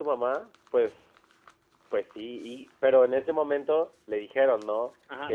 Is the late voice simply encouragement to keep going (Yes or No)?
No